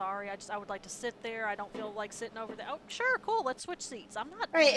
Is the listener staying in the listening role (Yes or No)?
No